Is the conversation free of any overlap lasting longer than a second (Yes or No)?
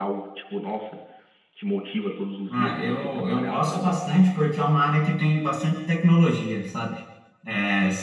No